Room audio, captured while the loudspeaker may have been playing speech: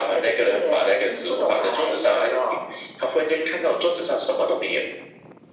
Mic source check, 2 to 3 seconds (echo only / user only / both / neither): echo only